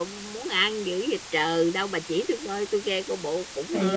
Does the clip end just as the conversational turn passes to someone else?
Yes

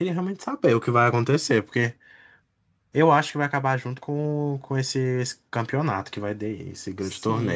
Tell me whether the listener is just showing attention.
No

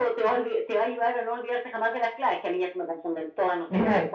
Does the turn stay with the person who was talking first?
No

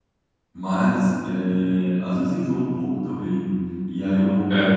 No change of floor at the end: Yes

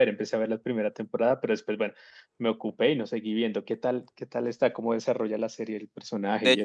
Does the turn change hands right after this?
Yes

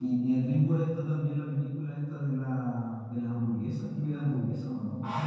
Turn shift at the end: Yes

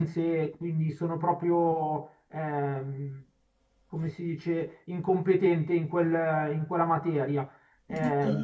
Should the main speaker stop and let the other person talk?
Yes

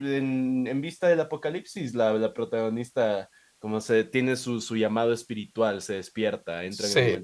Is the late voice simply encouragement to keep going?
Yes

